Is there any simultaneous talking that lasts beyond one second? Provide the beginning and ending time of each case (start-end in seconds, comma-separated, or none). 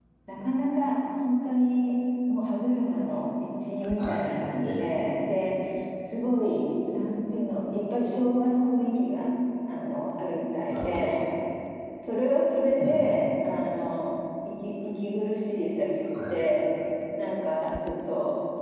4.0-5.3